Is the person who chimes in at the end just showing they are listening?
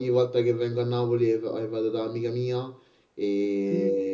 Yes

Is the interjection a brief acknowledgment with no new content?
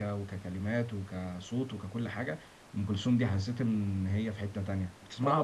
No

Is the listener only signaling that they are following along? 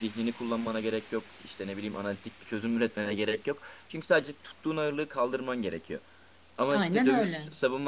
Yes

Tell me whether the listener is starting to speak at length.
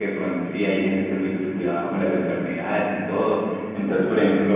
No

